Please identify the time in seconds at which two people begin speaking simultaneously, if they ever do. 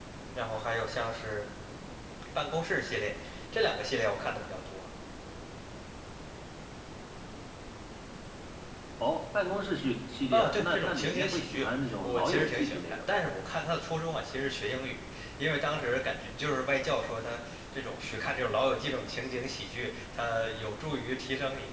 10.3 s

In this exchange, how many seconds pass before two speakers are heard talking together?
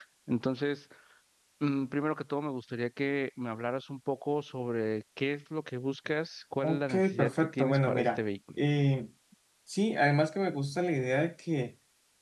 6.6 s

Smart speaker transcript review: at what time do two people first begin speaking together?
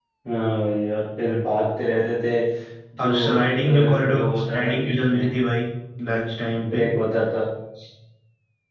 3.0 s

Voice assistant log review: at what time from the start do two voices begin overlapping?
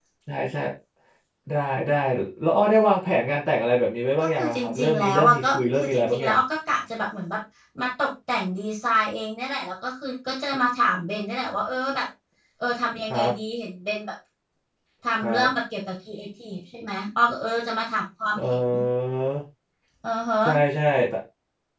4.3 s

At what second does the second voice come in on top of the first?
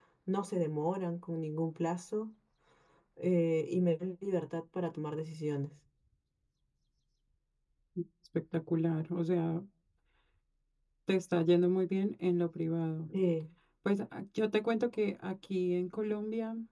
none

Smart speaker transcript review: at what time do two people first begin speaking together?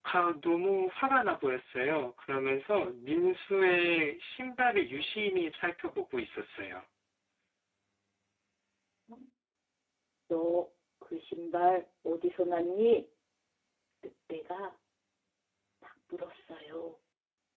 none

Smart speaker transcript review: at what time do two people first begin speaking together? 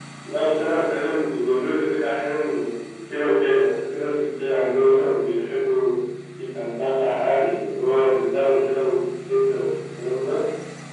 none

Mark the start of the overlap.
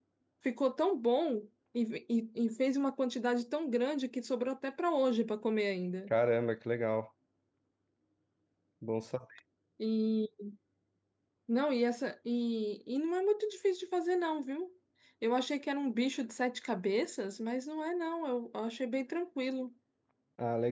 none

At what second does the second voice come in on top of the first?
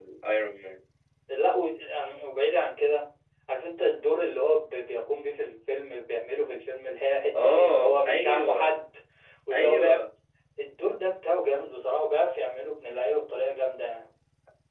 7.3 s

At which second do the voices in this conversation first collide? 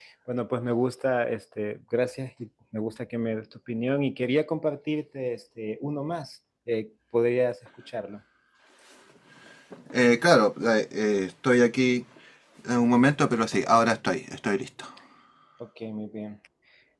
none

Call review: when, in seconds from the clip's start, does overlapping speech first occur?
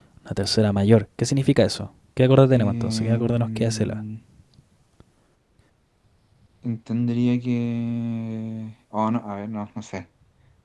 2.5 s

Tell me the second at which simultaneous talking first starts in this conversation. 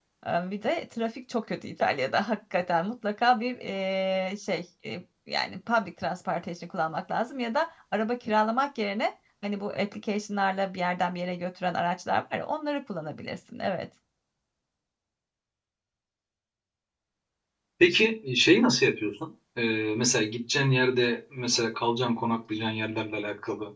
none

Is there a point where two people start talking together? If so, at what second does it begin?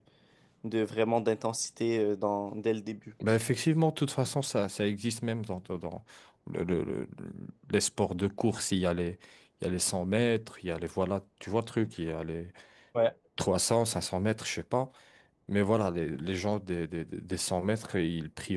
none

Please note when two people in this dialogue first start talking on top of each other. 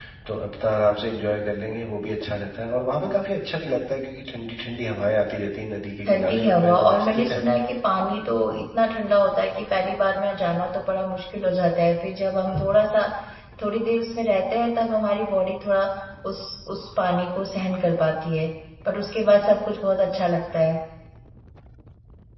6.1 s

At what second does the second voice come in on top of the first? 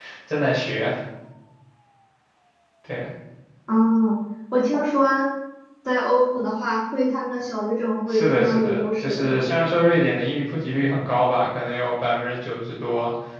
8.1 s

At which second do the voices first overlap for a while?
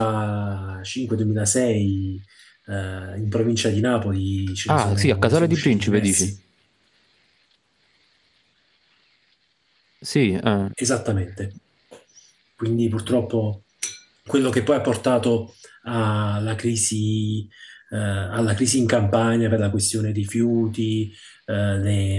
4.7 s

